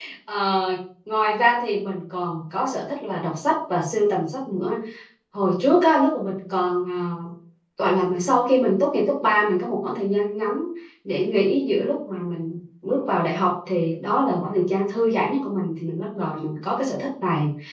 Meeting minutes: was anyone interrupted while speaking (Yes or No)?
No